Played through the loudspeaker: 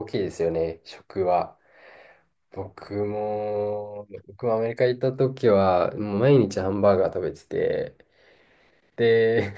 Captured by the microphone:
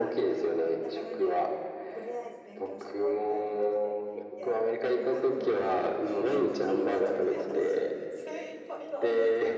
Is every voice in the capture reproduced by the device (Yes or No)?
No